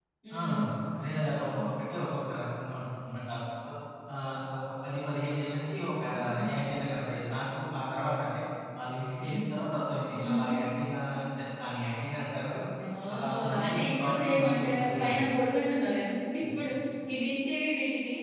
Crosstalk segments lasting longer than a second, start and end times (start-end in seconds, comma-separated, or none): 13.1-15.2